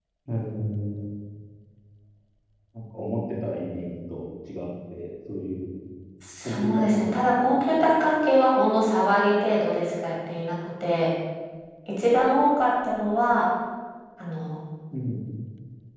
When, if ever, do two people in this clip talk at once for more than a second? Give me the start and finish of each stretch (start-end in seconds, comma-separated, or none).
6.5-7.9